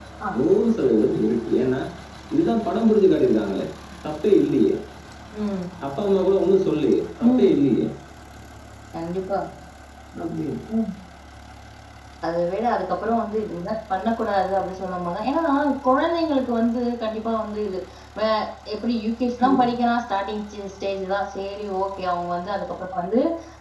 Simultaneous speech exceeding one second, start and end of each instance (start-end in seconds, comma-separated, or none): none